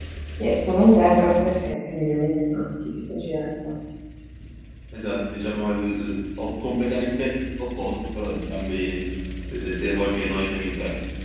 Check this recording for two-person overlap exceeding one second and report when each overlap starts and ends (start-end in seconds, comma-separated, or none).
none